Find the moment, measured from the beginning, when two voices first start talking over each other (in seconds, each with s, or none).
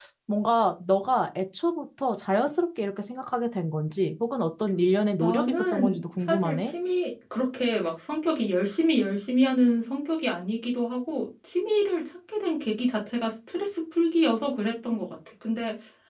5.2 s